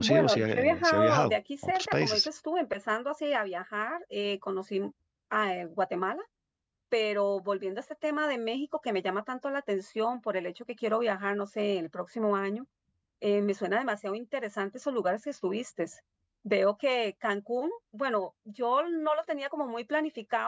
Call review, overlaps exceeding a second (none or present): present